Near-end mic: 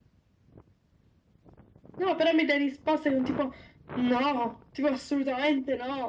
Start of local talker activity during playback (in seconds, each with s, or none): none